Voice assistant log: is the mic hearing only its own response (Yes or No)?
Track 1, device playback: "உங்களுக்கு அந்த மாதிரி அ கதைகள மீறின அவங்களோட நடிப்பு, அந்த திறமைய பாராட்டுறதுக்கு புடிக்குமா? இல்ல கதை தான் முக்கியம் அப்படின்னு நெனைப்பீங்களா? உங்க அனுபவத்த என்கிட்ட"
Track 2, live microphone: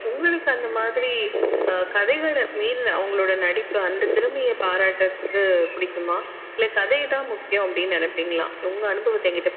Yes